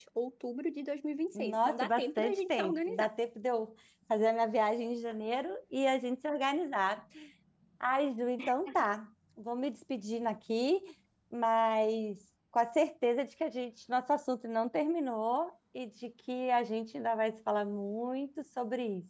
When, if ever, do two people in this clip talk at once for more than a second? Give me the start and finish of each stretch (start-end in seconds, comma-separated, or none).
1.4-3.1